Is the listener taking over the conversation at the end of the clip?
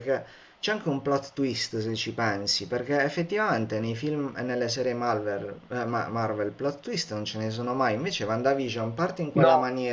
No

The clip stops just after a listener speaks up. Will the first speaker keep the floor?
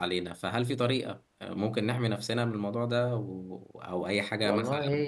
No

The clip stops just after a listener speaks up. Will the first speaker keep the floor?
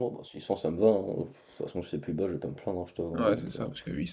No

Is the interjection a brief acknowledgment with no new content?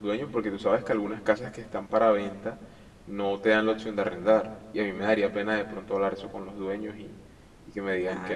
No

